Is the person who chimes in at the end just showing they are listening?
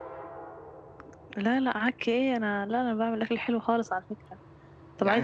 Yes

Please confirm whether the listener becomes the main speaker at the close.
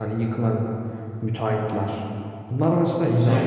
No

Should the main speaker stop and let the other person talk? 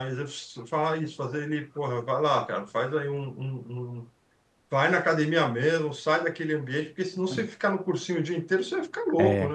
Yes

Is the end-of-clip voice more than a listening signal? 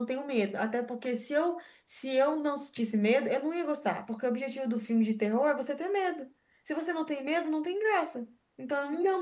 Yes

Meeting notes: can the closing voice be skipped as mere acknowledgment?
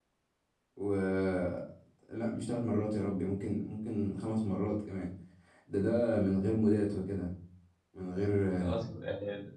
No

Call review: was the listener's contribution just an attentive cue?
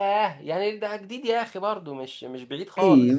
No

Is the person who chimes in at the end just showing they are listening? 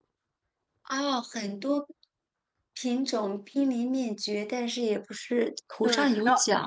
No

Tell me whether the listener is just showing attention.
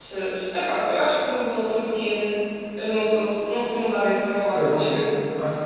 No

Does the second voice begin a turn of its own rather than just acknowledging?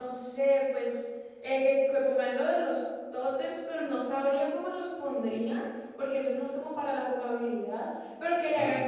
No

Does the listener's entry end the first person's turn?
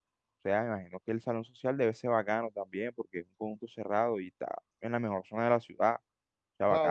Yes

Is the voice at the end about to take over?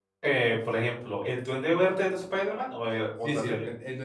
Yes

